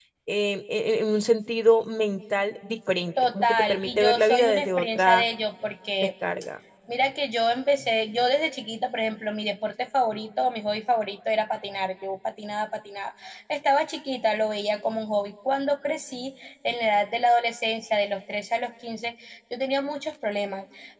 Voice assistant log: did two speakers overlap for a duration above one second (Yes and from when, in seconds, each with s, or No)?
Yes, from 3.2 s